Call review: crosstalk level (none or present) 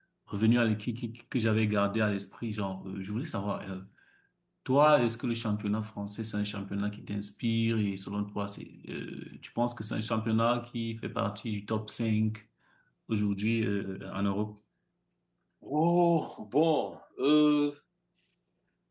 none